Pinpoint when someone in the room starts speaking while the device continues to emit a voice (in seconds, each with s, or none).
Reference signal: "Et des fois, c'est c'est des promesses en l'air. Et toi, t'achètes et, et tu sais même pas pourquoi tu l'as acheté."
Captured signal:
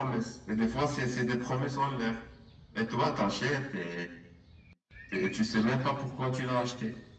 none